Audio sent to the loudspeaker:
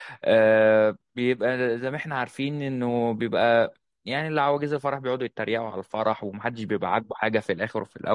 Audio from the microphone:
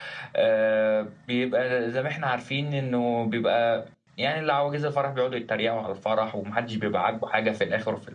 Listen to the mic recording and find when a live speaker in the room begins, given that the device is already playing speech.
none

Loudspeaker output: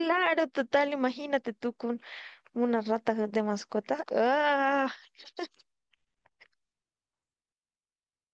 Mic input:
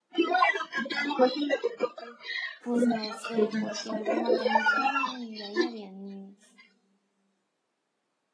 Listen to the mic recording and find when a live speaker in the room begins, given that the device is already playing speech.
2.6 s

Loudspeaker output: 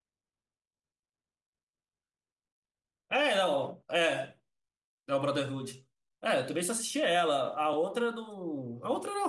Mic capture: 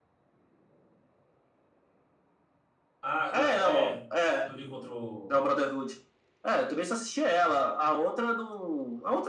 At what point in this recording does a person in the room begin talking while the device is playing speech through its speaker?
3.0 s

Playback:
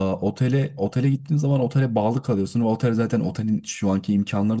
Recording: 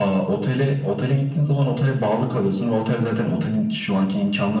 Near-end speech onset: none

